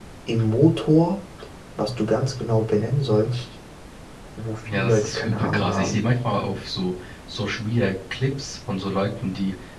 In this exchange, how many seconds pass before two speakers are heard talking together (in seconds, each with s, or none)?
4.7 s